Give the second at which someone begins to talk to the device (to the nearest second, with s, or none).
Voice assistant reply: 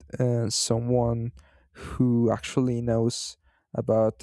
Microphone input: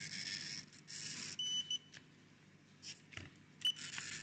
none